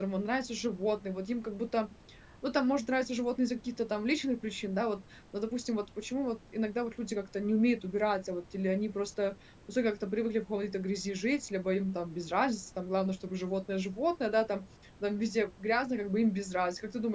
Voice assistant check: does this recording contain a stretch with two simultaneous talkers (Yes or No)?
No